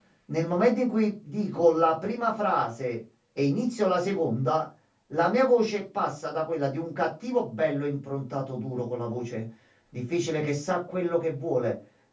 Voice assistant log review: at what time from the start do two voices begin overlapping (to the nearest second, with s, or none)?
none